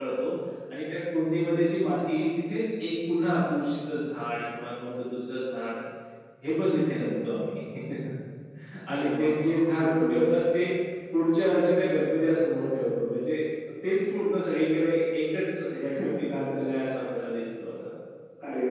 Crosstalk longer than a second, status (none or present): present